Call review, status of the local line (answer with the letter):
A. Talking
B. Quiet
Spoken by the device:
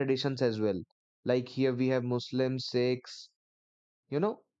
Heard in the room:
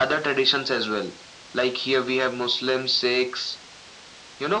B